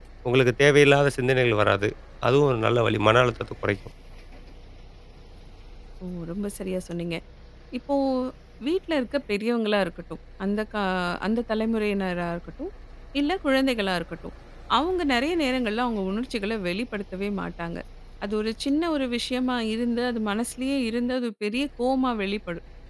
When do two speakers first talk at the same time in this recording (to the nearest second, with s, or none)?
none